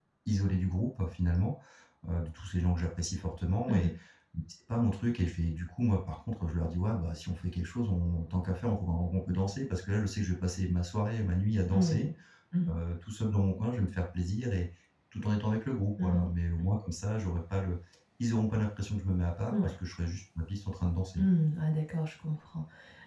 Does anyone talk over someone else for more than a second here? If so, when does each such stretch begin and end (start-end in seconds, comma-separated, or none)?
none